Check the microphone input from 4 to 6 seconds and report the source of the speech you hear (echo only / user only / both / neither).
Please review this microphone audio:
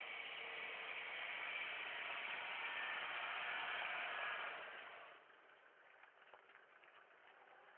neither